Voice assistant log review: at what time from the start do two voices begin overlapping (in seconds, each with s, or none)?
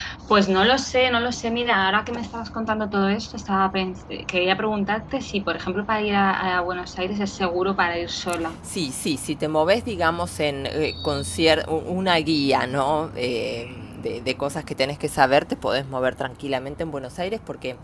none